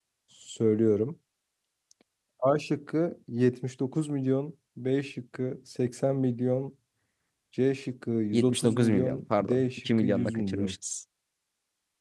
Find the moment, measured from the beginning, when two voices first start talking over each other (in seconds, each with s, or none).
8.3 s